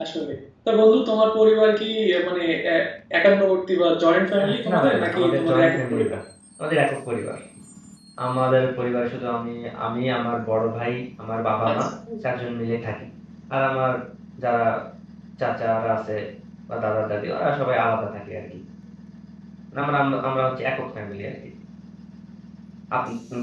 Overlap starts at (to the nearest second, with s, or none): 4 s